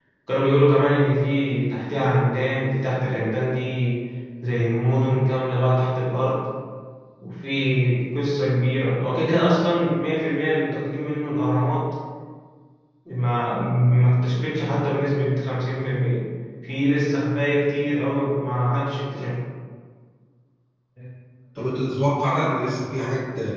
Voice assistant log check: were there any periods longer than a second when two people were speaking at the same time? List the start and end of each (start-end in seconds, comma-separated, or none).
none